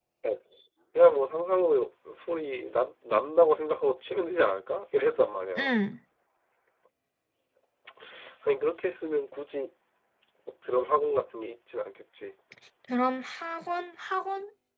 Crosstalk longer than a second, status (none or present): none